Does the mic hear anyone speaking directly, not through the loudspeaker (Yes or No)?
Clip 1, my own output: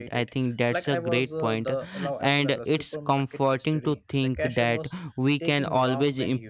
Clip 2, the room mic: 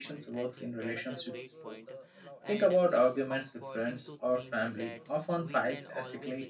Yes